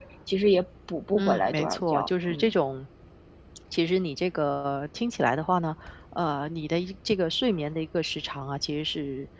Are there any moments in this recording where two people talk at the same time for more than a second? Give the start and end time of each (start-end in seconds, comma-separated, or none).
1.2-2.5